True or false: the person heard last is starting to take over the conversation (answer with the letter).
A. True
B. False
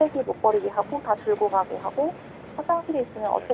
B